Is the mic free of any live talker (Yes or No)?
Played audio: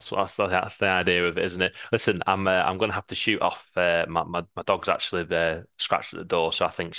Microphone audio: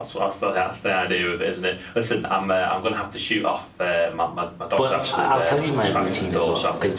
No